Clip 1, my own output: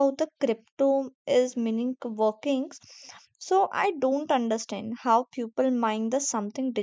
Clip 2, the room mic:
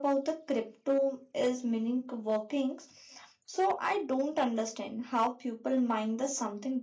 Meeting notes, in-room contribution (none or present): none